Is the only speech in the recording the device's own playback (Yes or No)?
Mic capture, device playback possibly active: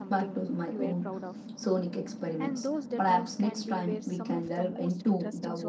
No